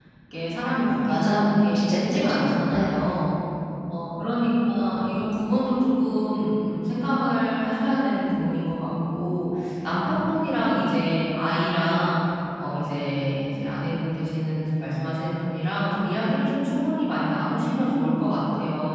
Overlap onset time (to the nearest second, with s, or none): 1 s